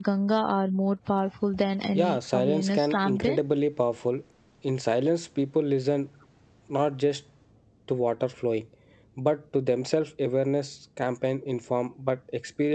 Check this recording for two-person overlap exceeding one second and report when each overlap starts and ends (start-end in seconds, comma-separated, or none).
2.0-3.4